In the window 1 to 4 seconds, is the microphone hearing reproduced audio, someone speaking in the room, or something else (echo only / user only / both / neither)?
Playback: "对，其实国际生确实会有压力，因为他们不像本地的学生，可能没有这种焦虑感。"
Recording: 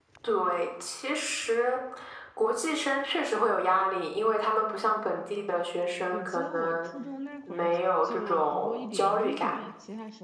echo only